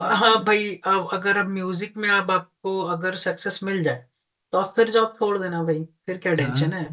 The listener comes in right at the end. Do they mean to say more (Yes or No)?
Yes